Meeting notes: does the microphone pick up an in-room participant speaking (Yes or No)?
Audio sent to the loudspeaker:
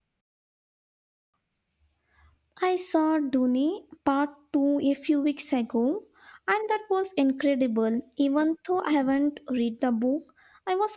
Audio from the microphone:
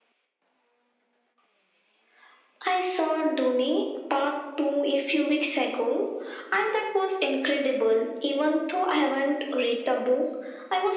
No